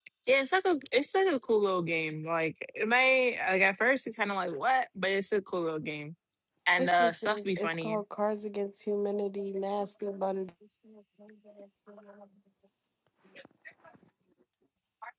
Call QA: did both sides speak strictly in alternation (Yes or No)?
No